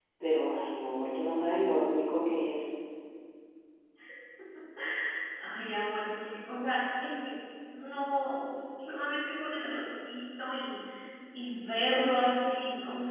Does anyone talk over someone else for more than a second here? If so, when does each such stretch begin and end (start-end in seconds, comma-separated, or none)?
none